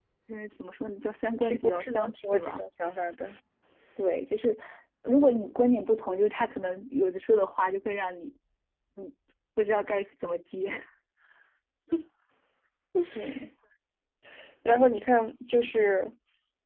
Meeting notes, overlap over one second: present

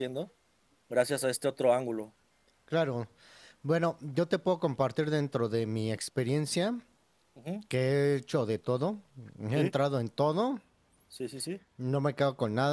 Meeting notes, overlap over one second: none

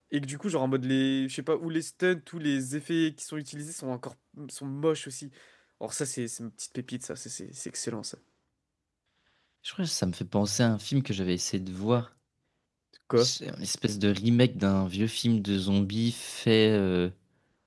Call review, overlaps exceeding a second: none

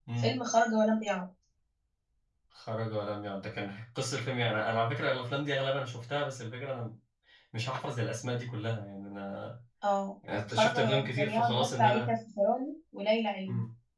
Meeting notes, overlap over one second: present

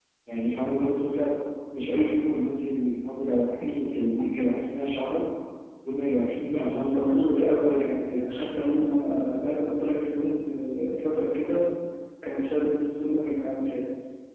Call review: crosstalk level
present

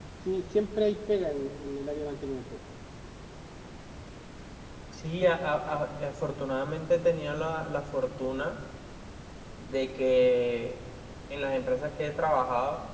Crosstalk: none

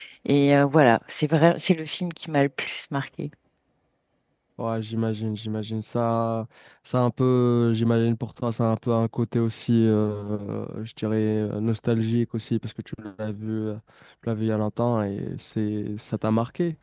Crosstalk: none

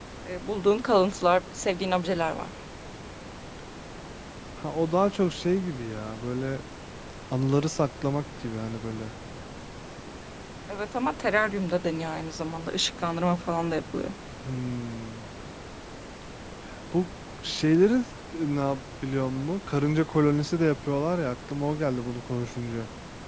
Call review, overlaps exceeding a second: none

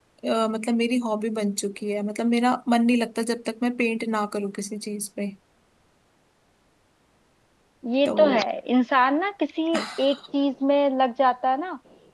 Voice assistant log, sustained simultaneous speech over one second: none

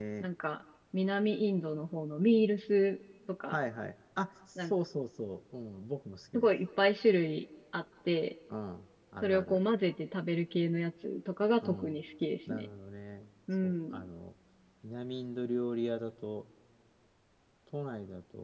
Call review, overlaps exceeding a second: none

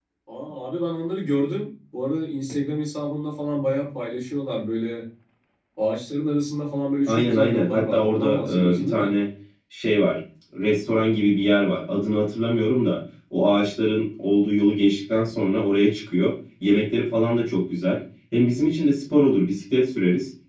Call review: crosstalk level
present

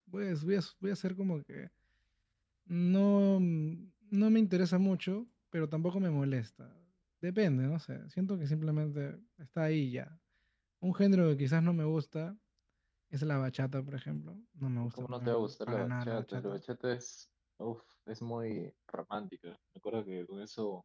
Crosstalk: present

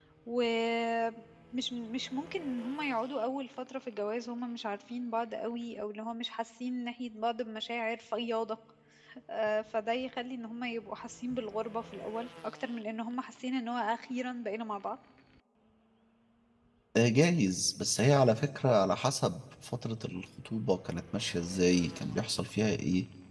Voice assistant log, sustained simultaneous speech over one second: none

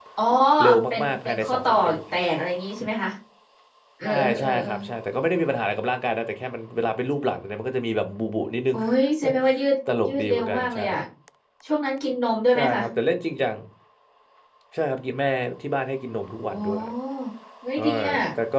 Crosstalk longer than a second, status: present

